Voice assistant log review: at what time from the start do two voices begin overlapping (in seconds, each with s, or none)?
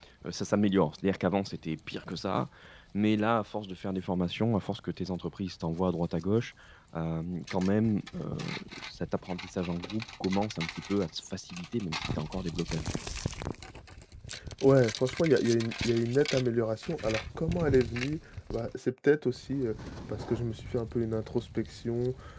none